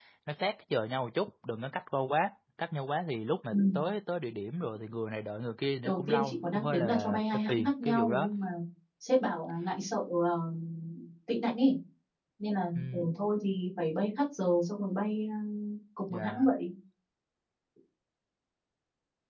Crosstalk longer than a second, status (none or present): present